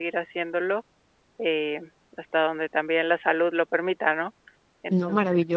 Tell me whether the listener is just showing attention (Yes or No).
No